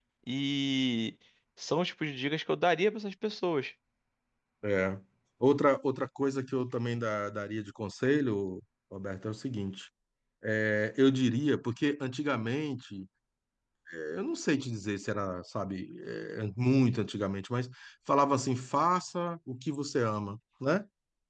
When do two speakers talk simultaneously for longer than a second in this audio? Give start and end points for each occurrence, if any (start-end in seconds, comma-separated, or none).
none